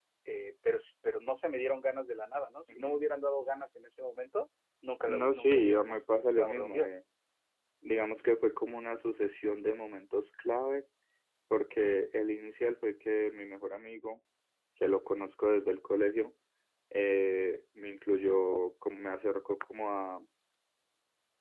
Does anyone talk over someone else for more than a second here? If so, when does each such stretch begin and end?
5.1-6.9

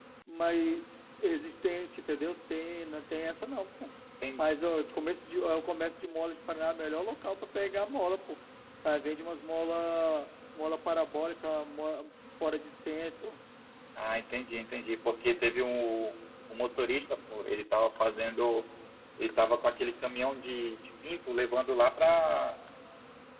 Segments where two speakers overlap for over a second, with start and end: none

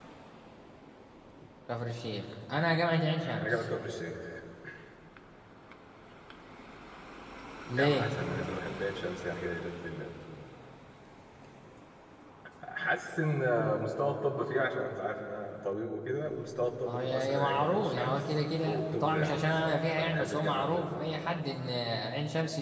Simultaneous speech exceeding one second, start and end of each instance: 16.9-21.1

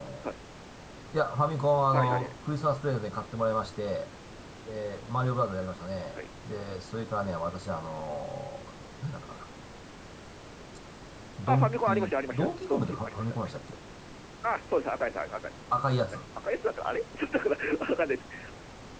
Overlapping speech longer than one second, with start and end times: 11.5-13.6

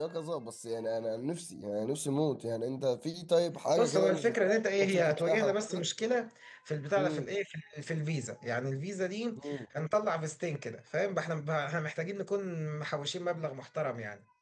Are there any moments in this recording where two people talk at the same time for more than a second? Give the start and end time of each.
3.8-5.8

